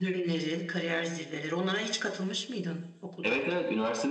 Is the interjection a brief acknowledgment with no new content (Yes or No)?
No